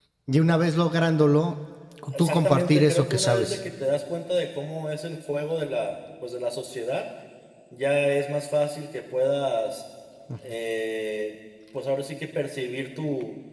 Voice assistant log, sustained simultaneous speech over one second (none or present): present